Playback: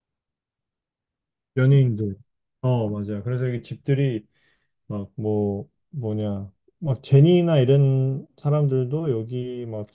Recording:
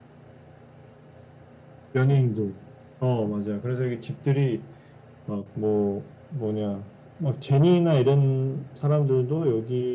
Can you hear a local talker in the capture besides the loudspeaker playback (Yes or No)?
No